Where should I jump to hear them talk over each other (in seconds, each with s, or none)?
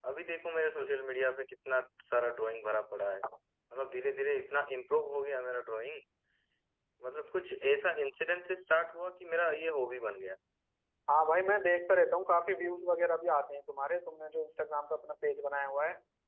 none